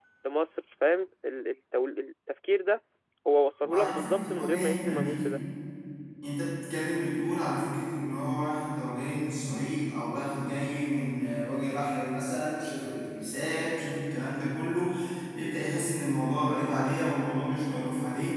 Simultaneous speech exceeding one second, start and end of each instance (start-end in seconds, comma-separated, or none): 3.6-5.2